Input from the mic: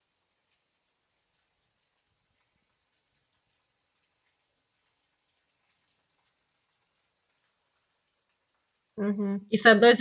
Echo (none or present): none